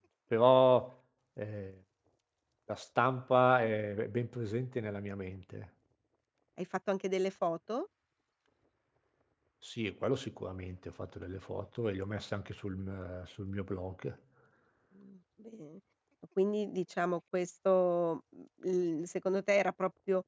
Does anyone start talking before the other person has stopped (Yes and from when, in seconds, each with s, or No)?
No